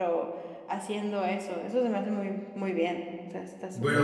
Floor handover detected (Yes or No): Yes